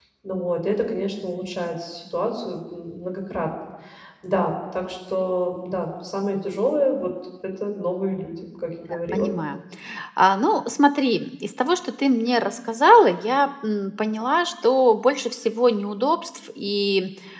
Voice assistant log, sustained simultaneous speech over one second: none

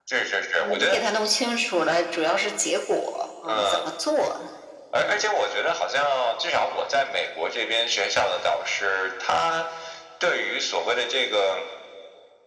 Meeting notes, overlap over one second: none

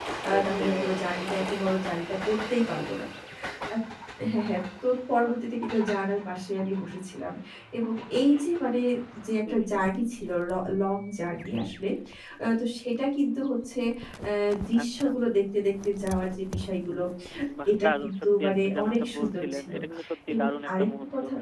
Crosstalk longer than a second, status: present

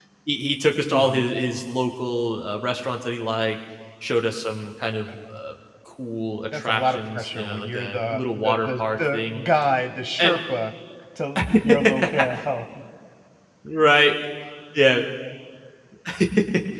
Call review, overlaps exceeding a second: present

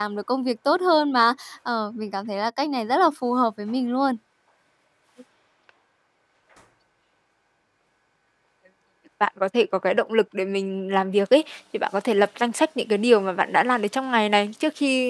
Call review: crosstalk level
none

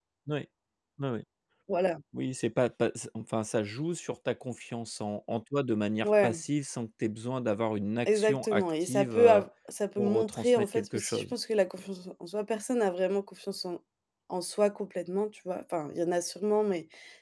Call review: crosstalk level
present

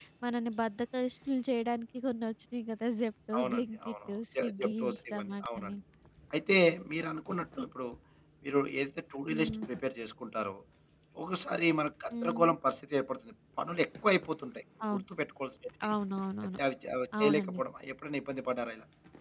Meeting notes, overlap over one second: present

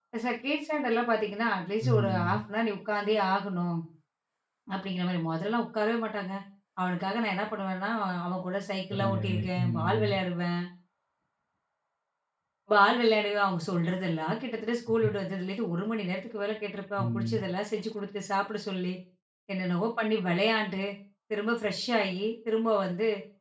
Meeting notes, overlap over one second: present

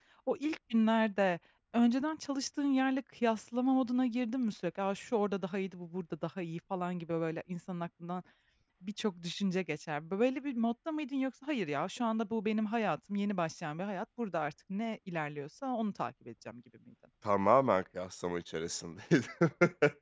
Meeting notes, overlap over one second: none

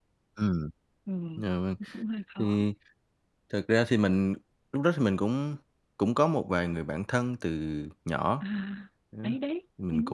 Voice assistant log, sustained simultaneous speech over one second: none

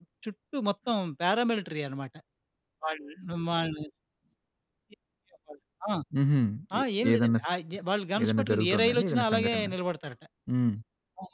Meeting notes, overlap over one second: present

